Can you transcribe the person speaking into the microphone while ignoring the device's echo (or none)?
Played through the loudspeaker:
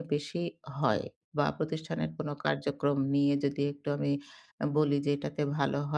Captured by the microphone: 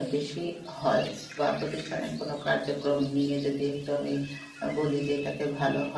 none